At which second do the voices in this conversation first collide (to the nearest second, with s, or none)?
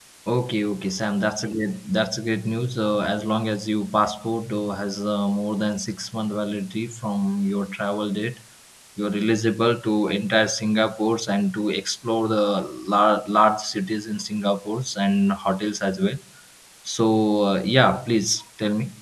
none